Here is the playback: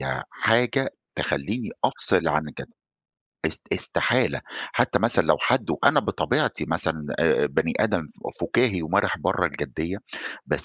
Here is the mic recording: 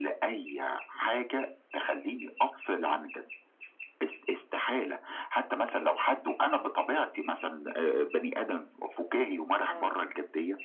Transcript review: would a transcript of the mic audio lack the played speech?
No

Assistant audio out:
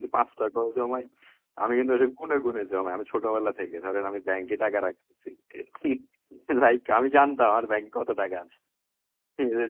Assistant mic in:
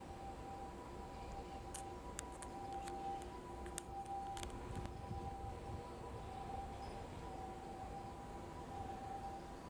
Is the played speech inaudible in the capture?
Yes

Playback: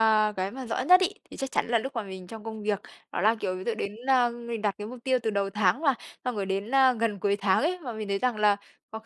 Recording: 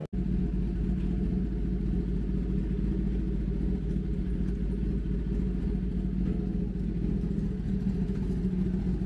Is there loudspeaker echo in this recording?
No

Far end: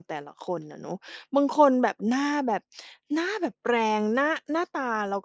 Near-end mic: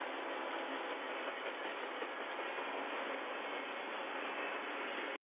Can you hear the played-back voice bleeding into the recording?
No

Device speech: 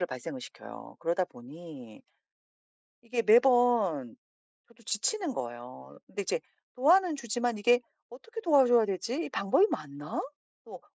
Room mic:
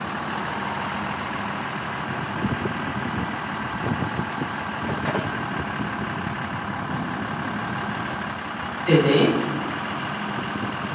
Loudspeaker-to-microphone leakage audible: No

